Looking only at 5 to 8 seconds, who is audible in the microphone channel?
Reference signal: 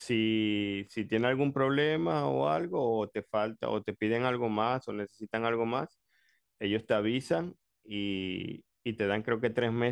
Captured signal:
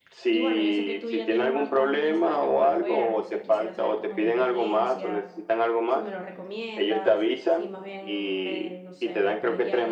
both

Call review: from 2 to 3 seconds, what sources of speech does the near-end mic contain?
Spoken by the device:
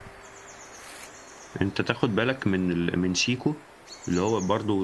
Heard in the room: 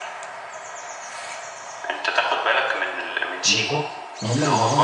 echo only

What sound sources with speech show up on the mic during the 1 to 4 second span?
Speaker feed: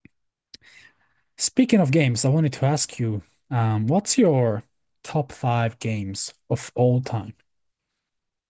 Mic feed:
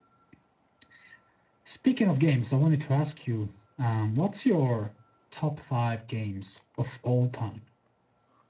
echo only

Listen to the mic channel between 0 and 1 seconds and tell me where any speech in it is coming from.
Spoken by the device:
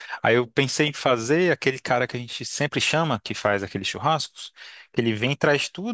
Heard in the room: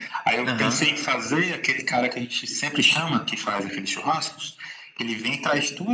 both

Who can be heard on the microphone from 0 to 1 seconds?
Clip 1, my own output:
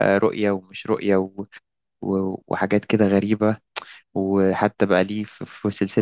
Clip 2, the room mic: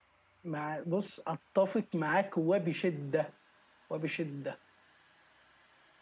user only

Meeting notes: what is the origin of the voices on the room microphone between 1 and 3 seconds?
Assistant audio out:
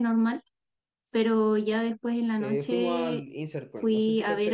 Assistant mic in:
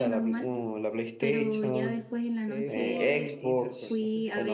both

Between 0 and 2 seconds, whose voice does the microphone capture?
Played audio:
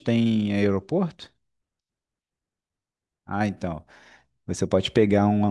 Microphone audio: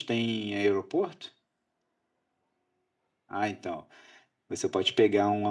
echo only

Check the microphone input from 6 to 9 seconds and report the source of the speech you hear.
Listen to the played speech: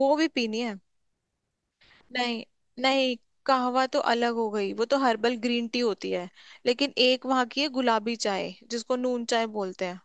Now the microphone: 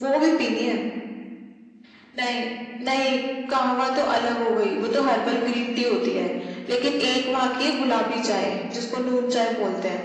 echo only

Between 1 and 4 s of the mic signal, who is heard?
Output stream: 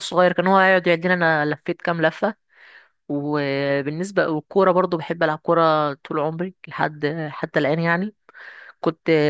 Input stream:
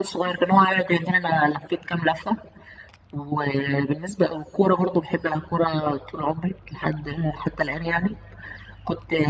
echo only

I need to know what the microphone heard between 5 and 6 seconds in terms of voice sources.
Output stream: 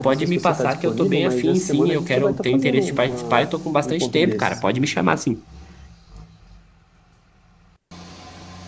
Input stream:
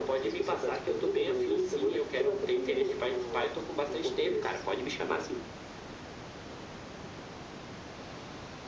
echo only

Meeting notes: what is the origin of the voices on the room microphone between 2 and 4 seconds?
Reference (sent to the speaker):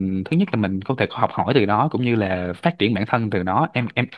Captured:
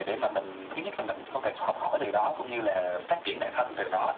echo only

